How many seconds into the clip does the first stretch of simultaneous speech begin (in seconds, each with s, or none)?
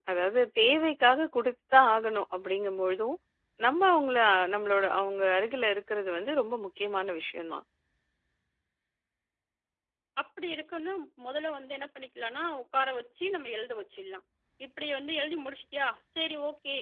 none